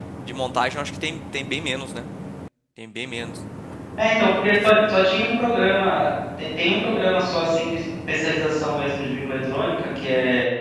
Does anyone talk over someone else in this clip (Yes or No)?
No